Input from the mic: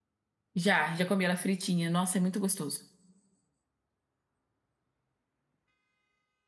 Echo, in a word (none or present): none